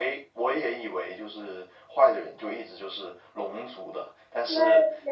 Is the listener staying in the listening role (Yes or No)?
Yes